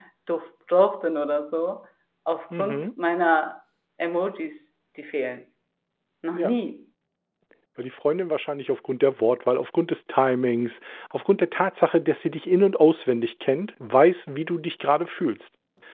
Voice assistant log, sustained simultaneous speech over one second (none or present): none